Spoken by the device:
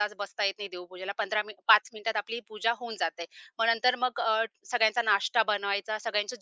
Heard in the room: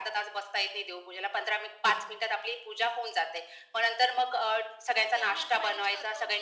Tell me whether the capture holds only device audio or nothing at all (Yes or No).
No